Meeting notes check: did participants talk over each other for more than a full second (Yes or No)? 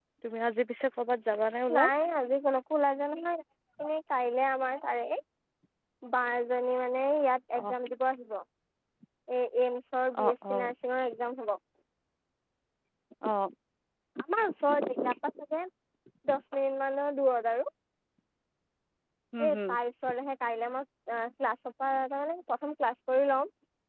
No